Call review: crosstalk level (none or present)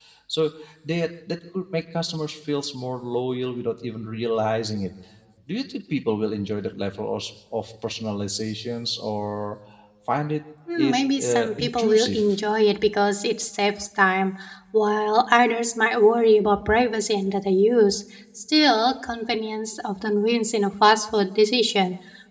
present